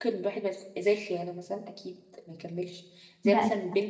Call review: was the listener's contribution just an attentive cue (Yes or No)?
Yes